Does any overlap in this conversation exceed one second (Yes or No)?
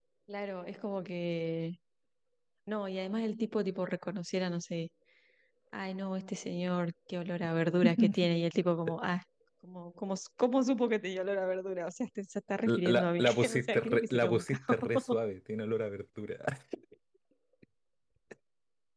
Yes